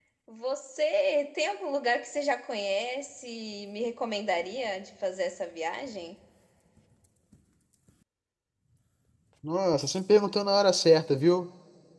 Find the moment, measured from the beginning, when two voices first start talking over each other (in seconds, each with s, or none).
none